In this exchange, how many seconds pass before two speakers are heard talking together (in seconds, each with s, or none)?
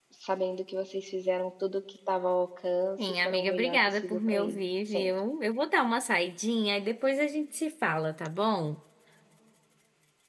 3.0 s